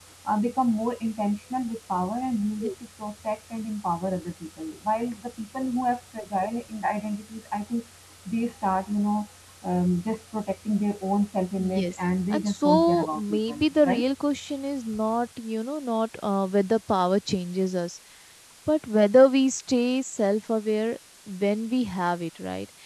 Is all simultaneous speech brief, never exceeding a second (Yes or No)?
No